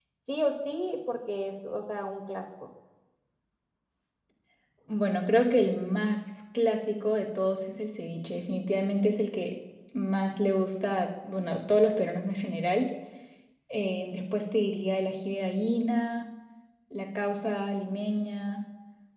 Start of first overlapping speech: none

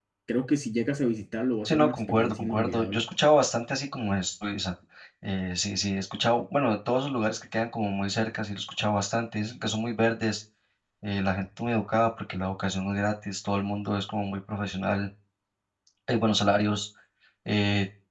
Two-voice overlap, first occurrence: 1.6 s

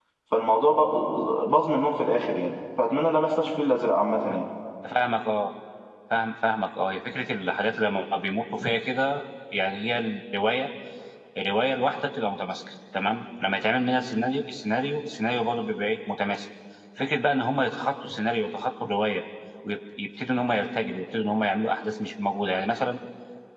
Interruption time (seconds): none

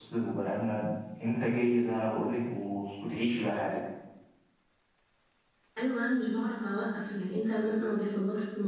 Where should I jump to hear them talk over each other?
none

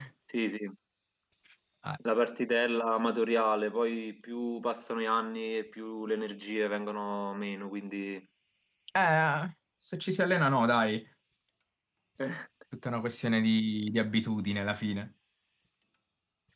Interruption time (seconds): none

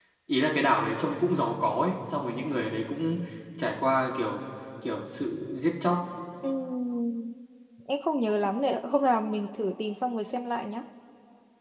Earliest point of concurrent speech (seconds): none

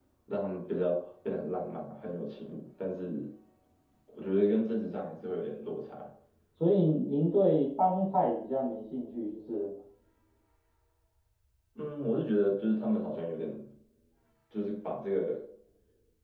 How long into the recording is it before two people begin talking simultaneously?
none

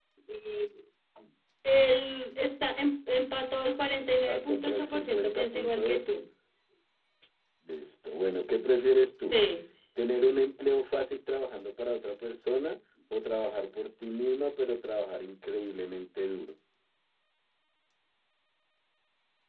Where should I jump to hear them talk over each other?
4.2 s

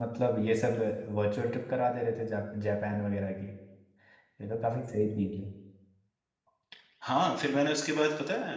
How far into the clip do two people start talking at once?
none

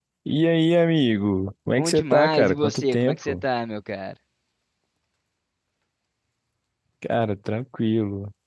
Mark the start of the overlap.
1.8 s

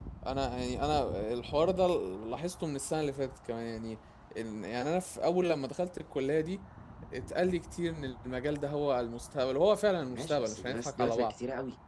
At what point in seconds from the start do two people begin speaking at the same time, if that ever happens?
10.1 s

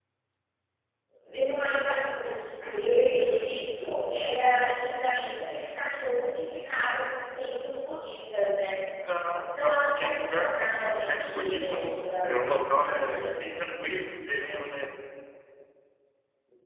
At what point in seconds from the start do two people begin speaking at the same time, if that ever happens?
9.6 s

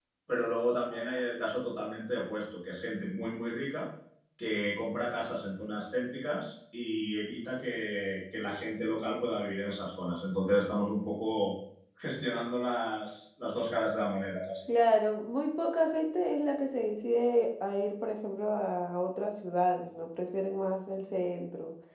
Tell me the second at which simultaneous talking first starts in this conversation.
none

